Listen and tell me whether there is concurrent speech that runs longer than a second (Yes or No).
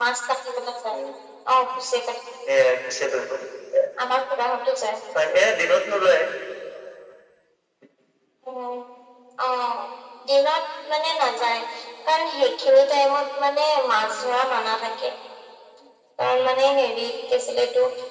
No